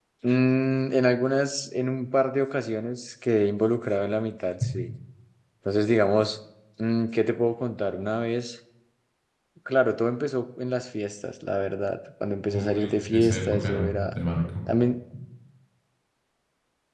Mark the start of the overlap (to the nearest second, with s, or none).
13 s